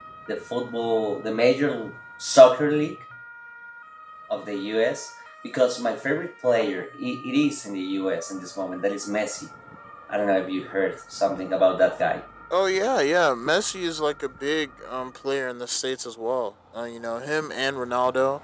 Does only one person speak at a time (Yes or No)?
Yes